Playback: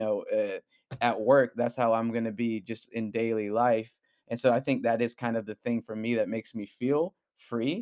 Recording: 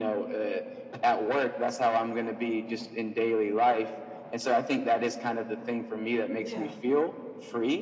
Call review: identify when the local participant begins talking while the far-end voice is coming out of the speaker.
6 s

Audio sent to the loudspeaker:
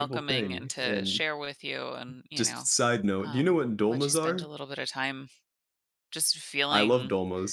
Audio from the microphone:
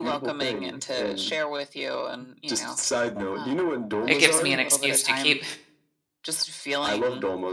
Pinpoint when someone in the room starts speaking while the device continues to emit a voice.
4 s

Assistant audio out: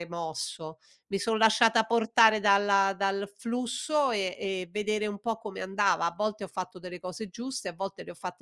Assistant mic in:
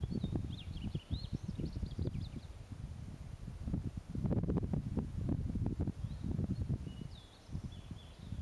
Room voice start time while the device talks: none

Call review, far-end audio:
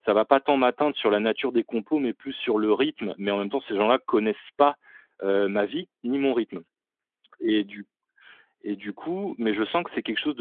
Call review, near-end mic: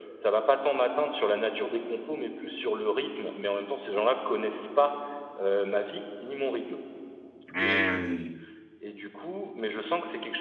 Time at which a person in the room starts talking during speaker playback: 8 s

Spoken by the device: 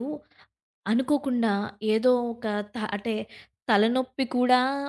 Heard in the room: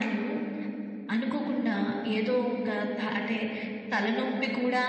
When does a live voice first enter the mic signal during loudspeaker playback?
none

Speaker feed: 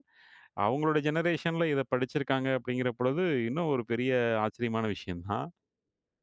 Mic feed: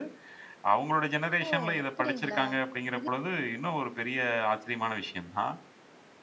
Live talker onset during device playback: 1 s

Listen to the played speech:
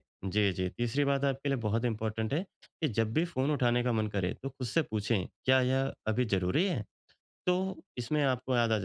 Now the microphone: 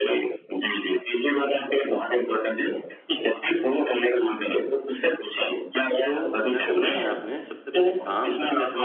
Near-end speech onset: 6 s

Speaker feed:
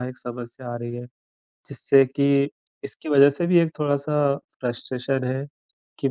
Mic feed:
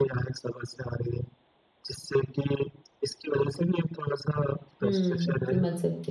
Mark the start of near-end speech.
5 s

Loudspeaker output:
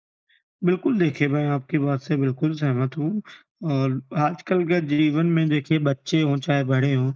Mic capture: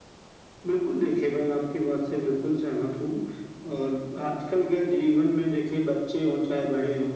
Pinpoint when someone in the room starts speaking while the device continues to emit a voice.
none

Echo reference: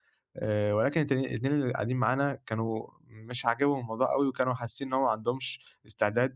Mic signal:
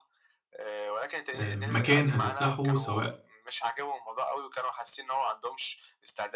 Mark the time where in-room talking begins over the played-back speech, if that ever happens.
1 s

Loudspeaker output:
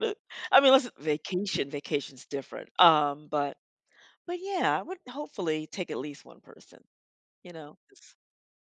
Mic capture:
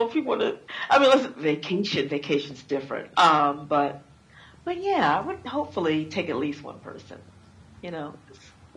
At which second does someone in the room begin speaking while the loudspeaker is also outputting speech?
none

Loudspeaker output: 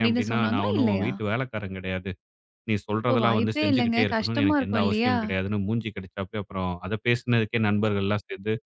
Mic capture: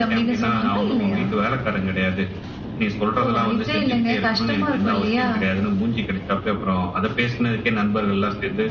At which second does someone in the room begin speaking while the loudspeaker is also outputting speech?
none

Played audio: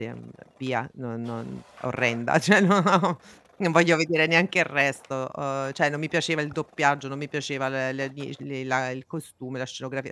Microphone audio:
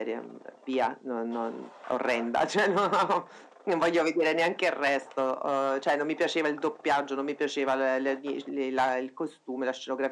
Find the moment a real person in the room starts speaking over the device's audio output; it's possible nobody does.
none

